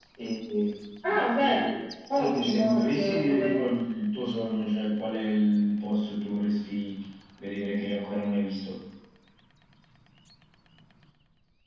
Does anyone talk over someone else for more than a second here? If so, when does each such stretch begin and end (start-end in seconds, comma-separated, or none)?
2.1-3.6